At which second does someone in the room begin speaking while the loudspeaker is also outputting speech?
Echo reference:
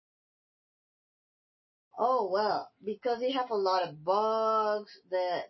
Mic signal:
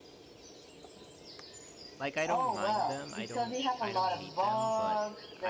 2.0 s

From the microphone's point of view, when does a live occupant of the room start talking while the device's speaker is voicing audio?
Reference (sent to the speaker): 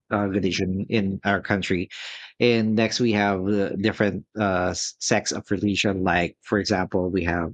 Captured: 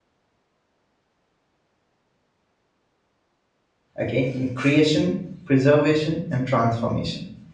4.0 s

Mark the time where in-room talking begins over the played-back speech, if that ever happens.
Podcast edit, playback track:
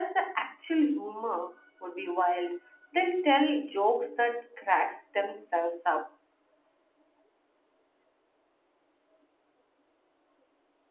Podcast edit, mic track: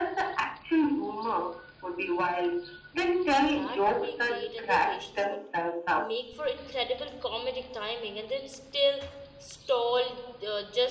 3.5 s

